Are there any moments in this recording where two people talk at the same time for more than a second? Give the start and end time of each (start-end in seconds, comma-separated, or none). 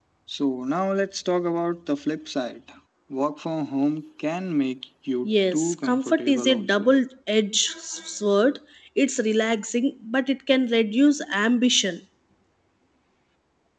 5.2-6.9